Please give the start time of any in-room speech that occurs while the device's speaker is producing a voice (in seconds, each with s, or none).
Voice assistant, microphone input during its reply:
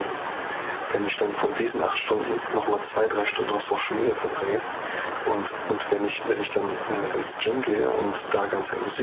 none